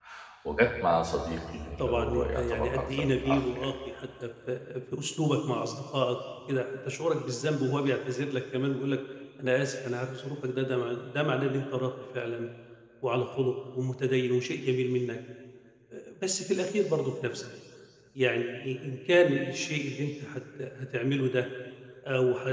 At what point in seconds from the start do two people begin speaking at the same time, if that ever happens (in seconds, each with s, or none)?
1.8 s